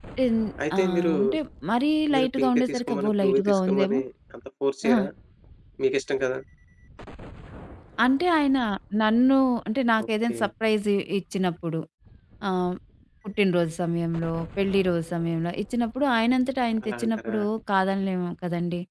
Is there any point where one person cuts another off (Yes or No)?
Yes